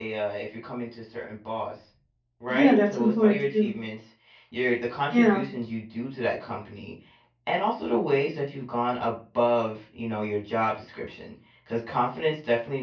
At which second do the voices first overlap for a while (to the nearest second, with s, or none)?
2 s